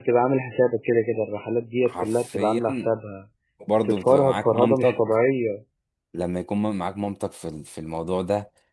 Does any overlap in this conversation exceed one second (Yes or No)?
Yes